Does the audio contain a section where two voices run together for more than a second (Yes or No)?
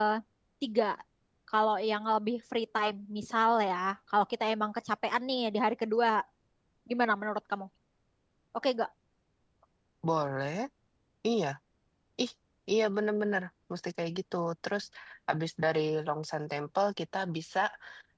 No